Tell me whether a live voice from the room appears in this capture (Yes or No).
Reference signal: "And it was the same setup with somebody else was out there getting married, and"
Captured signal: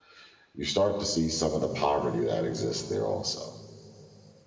Yes